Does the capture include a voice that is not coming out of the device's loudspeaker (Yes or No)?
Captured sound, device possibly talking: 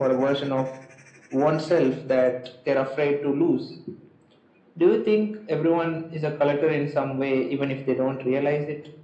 No